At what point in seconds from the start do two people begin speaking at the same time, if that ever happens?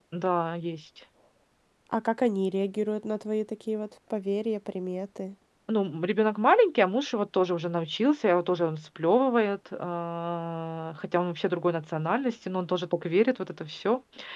none

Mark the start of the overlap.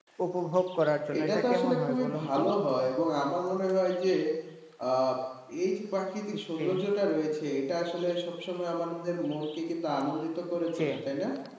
1.2 s

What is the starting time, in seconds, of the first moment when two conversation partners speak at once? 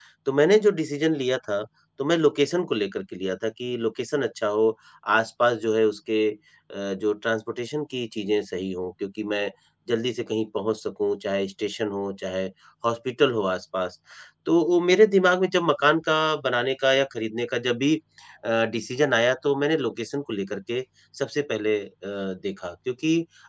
none

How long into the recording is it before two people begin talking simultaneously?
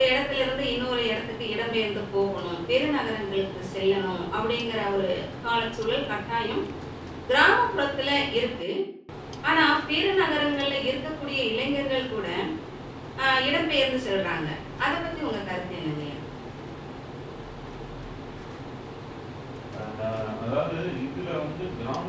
none

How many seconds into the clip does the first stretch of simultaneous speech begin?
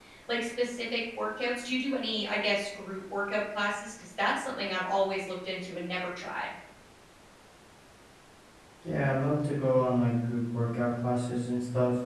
none

